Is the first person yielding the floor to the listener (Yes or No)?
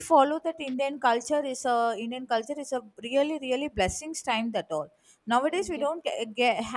No